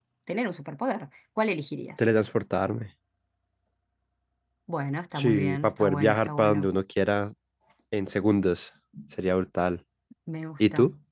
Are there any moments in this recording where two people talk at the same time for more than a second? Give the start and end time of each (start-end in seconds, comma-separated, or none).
5.2-6.7